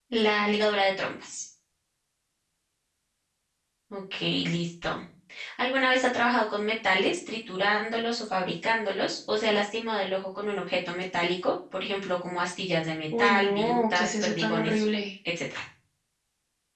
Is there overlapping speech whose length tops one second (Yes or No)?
Yes